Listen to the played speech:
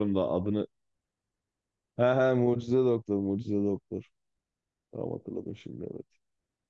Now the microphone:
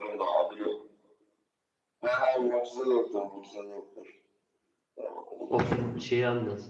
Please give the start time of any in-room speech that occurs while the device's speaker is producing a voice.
5.5 s

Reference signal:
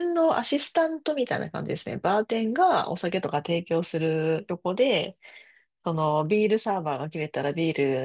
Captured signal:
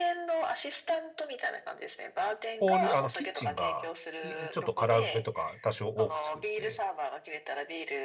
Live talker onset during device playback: 2.5 s

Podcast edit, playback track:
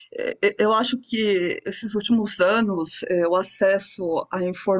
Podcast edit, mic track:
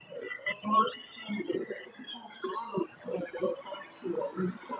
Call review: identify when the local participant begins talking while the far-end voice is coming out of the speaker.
none

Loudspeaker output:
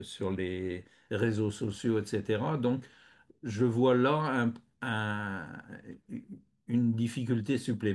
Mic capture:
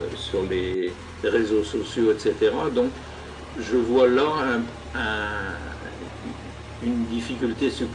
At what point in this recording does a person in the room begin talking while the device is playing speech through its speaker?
none

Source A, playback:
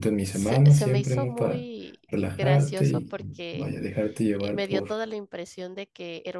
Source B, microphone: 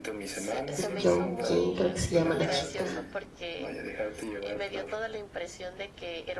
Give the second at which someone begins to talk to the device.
0.8 s

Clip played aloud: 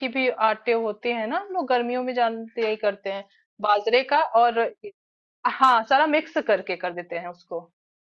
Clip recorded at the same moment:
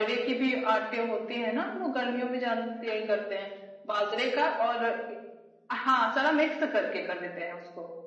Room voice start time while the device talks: none

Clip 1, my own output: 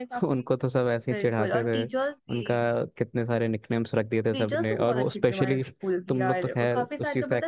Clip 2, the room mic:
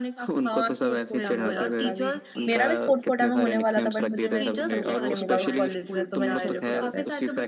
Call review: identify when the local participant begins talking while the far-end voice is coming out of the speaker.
0.5 s

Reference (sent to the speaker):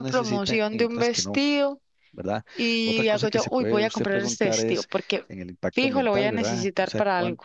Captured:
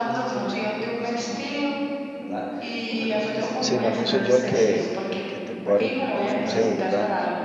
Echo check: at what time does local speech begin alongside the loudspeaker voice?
3.6 s

